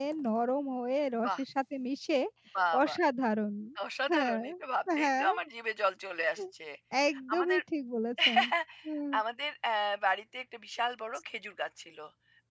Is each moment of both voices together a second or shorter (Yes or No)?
Yes